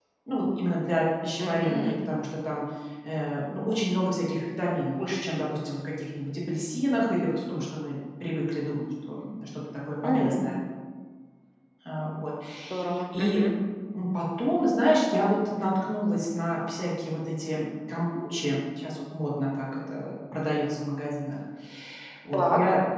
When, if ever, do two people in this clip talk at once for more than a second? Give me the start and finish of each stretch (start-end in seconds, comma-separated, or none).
none